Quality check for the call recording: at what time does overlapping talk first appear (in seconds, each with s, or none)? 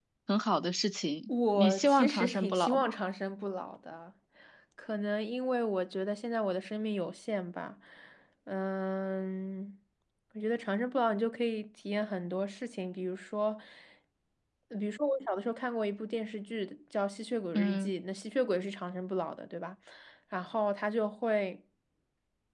1.3 s